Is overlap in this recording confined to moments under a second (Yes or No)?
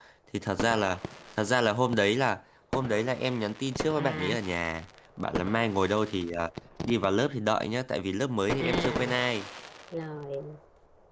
Yes